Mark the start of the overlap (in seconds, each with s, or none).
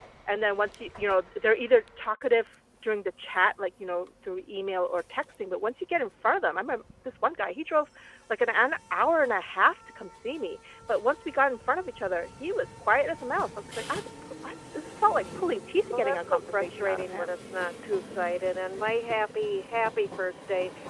15.9 s